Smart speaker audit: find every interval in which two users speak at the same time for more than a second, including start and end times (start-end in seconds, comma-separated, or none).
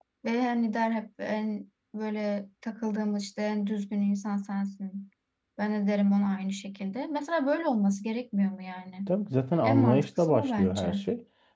9.6-10.9